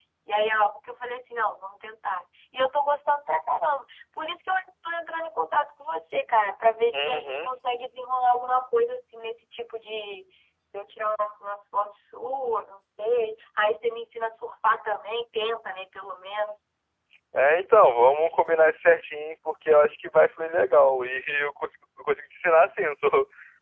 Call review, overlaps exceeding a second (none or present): none